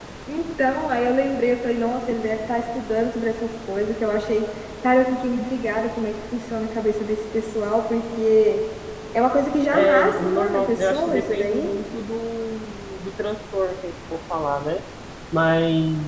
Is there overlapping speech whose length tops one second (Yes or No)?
Yes